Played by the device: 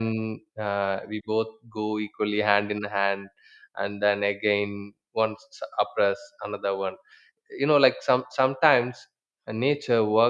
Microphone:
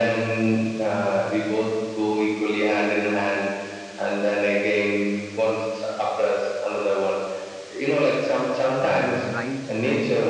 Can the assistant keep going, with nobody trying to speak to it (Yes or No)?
No